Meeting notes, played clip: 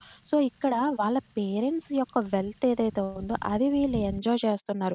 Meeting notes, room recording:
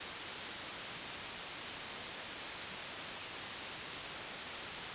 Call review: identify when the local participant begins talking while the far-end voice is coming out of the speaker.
none

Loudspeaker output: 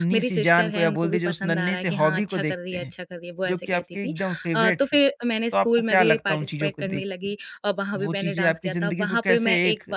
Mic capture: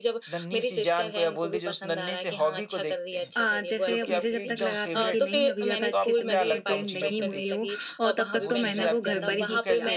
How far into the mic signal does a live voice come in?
3.4 s

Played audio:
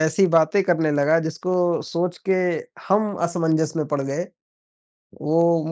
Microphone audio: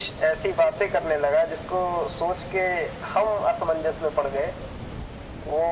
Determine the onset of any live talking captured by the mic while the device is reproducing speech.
none

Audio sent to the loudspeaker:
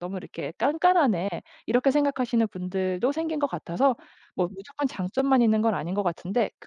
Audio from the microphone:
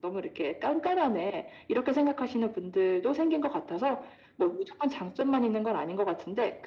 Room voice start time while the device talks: none

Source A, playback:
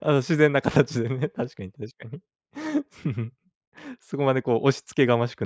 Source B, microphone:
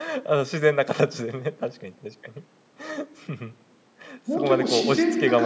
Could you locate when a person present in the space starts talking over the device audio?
4.2 s

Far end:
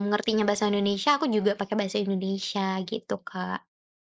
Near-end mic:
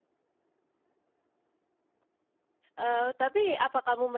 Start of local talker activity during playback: 2.8 s

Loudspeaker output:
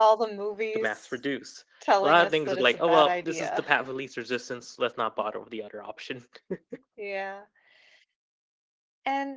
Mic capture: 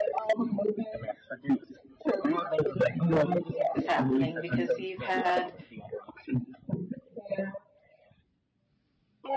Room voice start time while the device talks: 3.7 s

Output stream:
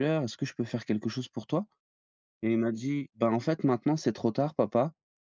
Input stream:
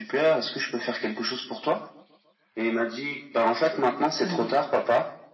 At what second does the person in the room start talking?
4.2 s

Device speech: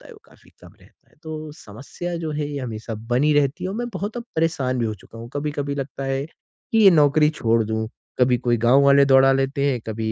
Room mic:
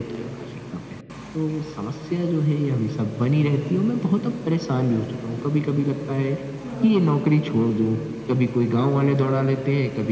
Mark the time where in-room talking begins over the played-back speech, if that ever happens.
6.6 s

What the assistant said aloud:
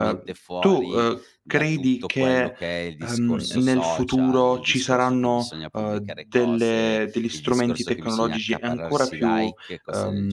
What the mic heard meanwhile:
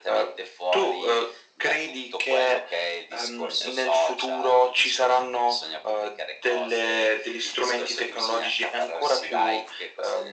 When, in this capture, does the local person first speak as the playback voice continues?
none

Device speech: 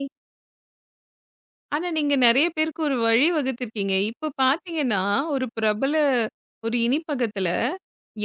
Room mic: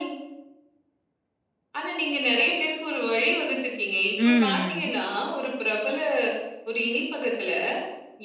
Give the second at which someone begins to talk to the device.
4.2 s

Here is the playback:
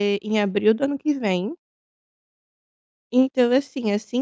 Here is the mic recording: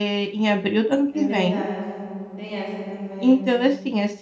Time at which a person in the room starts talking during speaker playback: 1.1 s

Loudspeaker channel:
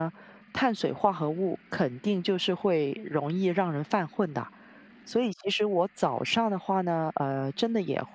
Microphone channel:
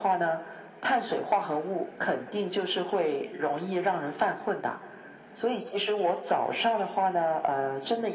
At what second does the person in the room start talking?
none

